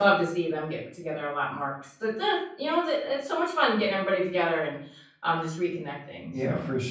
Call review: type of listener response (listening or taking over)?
taking over